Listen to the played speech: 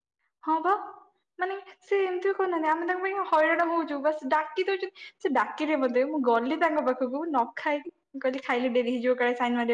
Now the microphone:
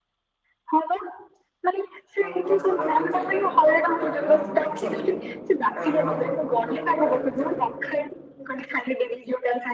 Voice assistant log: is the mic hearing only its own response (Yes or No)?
No